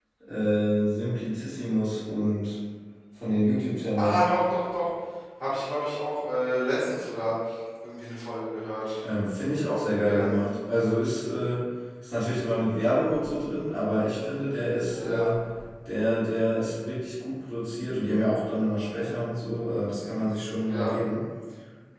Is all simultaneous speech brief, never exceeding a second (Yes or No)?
Yes